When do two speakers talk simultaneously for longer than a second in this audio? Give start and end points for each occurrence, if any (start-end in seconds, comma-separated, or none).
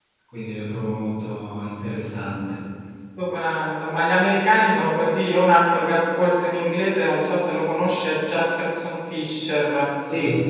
none